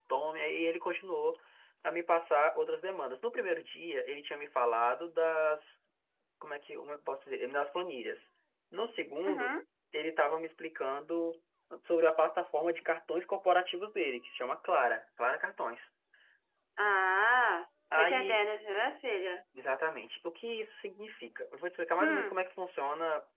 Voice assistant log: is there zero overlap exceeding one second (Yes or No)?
Yes